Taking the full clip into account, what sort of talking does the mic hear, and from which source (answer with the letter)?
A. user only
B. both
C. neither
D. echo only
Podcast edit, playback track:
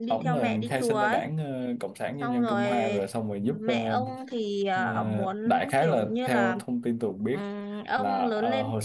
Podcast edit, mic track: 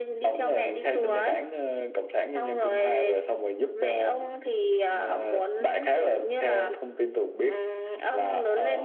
B